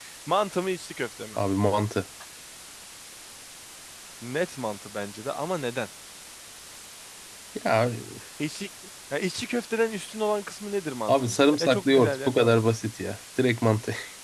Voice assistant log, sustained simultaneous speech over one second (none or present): present